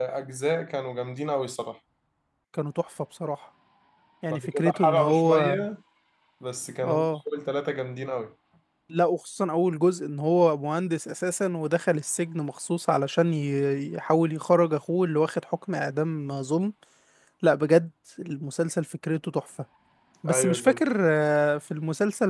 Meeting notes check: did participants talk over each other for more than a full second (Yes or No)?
Yes